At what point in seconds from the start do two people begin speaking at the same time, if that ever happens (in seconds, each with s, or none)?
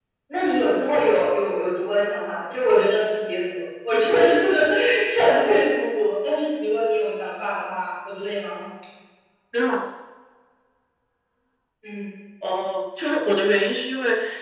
none